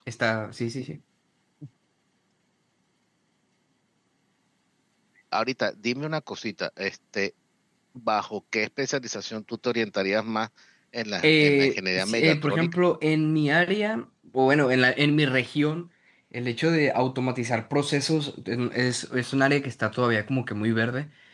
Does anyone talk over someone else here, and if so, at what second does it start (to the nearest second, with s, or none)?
11 s